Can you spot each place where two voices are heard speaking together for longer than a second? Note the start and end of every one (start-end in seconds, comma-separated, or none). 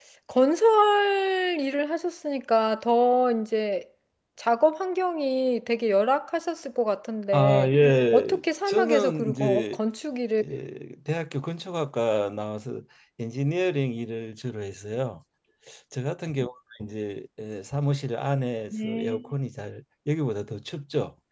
8.1-9.8